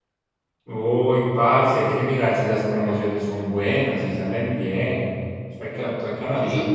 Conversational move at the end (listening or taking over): taking over